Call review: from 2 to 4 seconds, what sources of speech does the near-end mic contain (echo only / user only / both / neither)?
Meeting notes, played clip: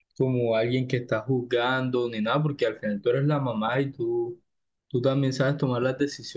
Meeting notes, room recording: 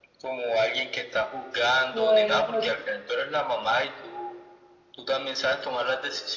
both